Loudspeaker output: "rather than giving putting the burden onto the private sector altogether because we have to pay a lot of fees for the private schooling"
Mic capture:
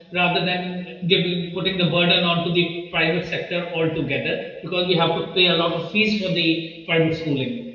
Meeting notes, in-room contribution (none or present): none